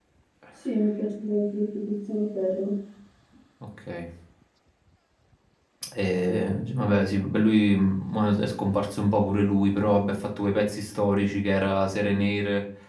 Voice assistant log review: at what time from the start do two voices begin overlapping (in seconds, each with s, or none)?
none